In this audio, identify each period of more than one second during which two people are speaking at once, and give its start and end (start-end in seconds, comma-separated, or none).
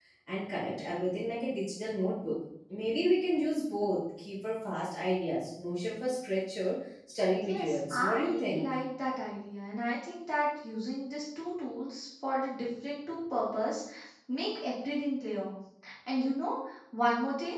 7.4-8.6